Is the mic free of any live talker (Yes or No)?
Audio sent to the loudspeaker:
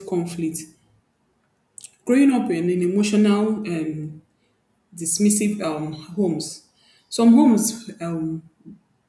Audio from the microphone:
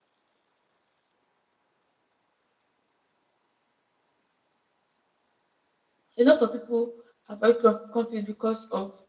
No